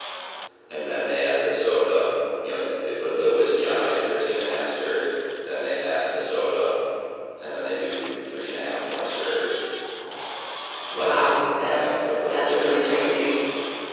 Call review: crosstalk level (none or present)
present